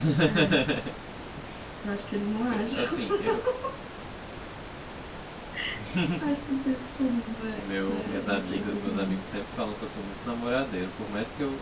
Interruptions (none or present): present